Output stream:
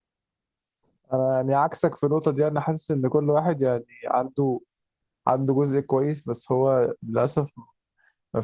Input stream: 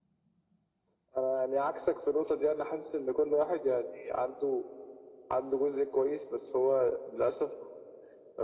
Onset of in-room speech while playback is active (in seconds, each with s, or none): none